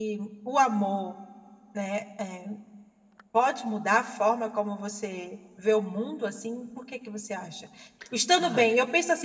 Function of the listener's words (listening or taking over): listening